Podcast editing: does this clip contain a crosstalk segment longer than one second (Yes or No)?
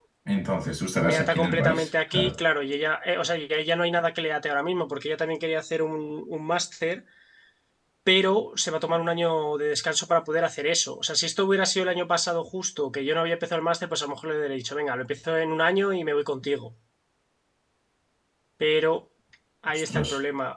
Yes